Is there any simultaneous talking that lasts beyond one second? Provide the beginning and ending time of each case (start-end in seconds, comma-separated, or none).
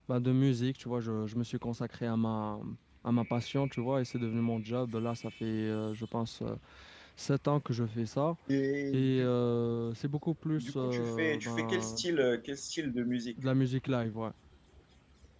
10.6-12.0